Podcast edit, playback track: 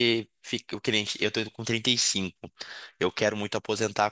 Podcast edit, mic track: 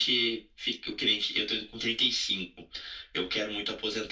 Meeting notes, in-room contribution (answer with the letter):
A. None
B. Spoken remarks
A